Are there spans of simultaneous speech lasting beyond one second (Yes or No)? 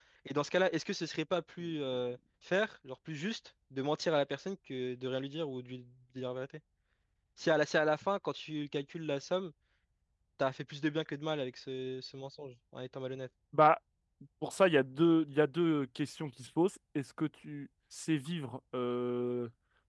No